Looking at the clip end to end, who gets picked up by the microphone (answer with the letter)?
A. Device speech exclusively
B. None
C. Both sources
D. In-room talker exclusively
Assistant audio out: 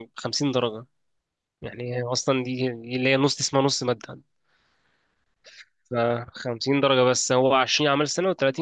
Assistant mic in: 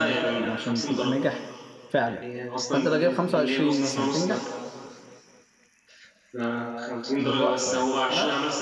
C